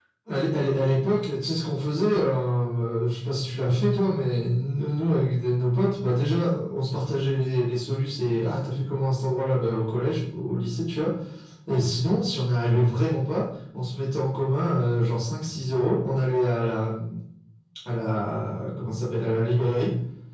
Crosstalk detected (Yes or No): No